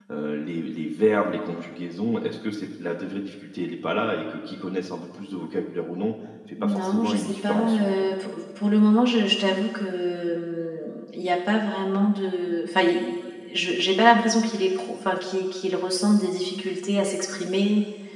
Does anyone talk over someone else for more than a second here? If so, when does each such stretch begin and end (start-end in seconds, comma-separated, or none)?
6.6-8.1